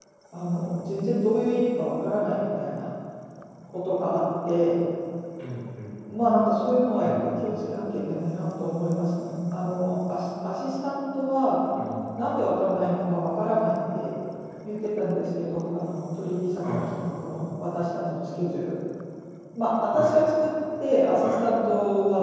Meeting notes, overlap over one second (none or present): none